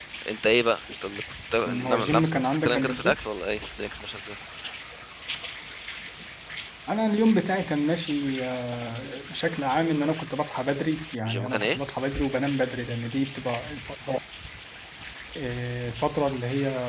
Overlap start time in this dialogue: 1.7 s

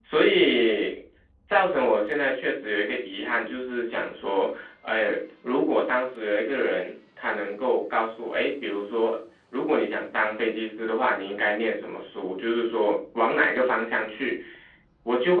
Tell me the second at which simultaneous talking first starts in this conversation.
none

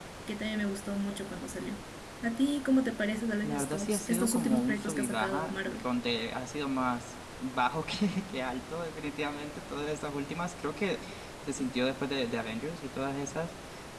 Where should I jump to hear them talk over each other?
3.4 s

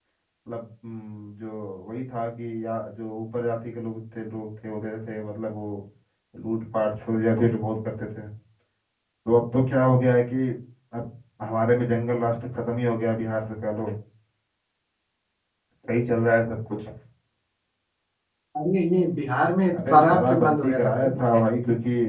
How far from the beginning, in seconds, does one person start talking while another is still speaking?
19.7 s

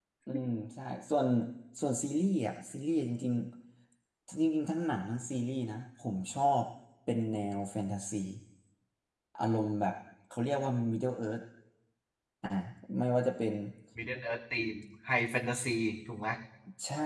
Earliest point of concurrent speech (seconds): none

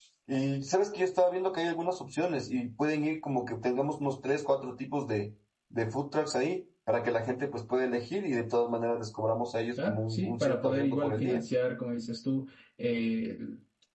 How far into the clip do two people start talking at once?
9.8 s

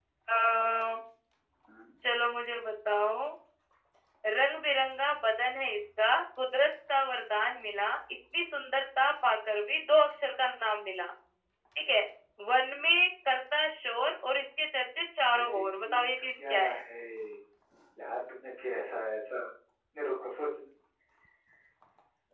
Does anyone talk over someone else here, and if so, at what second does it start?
15.3 s

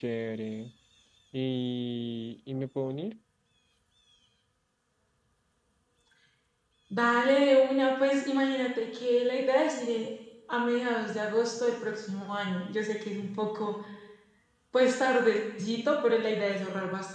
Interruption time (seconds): none

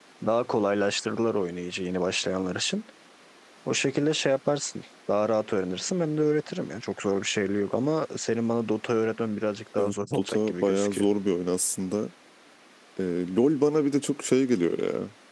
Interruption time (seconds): 9.8 s

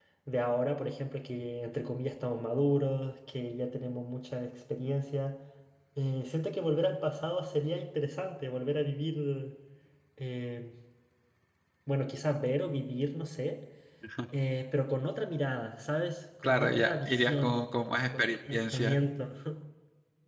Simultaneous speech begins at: 16.4 s

